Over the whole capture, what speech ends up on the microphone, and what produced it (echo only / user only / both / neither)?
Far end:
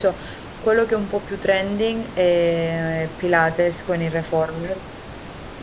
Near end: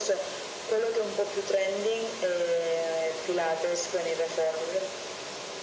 echo only